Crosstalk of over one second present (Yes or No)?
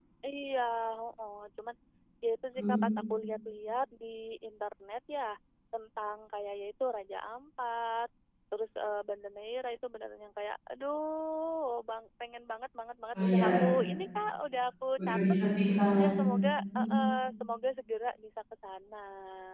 No